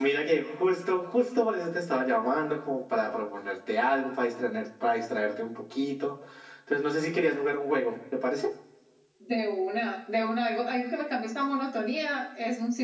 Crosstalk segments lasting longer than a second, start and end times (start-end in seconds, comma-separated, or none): none